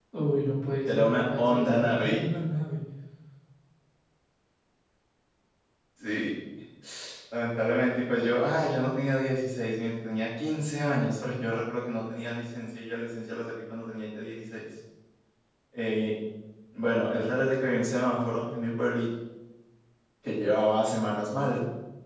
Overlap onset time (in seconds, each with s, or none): 0.9 s